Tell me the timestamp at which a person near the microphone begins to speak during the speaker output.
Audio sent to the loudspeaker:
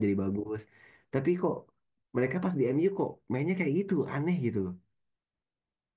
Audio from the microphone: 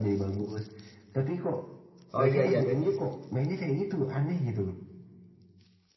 2.2 s

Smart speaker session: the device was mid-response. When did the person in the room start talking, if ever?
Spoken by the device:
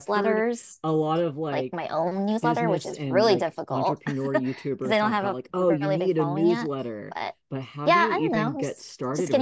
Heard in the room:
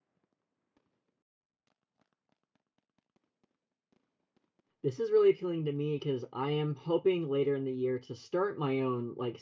4.8 s

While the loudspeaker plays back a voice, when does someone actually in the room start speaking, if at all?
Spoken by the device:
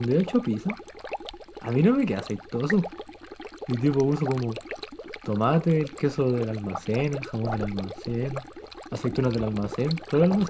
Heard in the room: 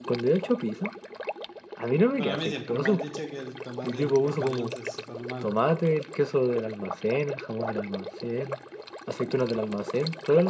2.1 s

